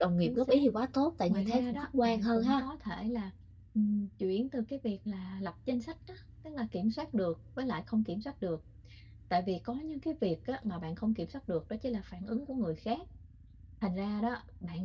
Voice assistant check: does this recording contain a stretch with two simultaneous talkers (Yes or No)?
Yes